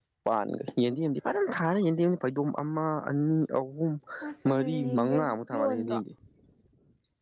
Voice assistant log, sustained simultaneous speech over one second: present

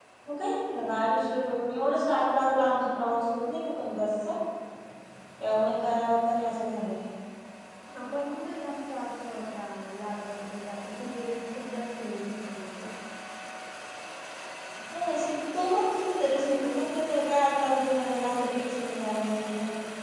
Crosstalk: none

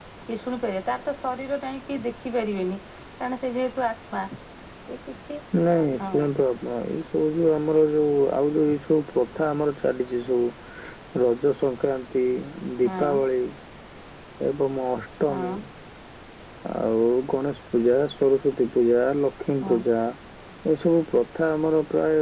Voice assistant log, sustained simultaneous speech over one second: none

